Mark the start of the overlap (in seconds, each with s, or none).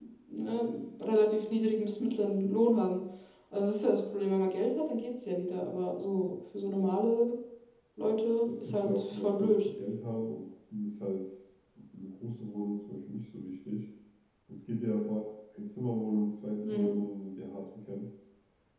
8.5 s